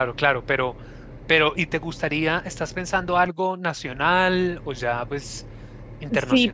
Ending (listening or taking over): taking over